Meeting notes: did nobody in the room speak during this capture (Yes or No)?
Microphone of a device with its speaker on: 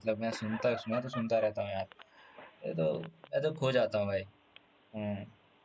No